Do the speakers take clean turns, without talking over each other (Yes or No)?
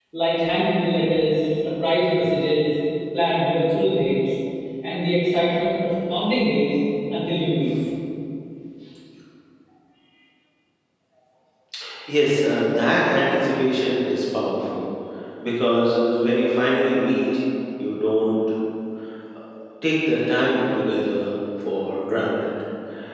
Yes